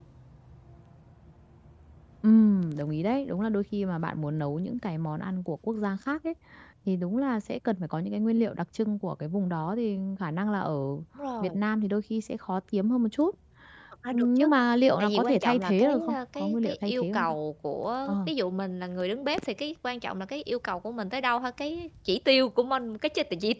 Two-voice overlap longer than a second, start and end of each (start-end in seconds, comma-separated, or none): 15.0-17.3